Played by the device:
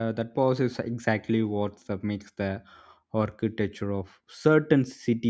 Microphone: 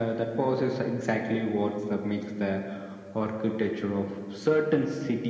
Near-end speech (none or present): none